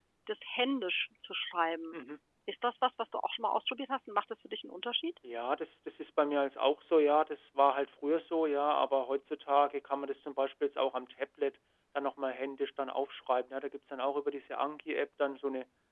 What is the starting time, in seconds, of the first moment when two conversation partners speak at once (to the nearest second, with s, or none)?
none